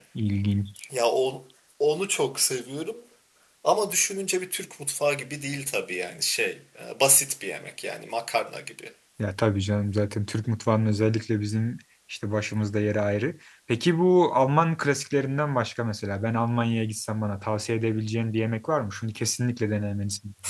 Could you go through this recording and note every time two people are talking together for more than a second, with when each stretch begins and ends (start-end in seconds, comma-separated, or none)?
none